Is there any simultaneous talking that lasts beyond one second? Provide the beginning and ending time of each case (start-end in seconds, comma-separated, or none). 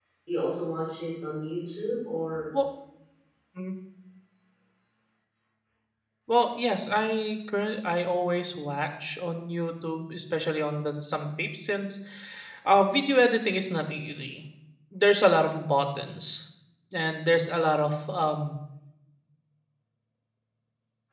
none